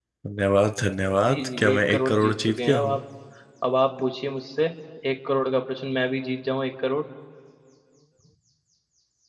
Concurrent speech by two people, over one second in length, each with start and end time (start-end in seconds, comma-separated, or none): 1.2-3.0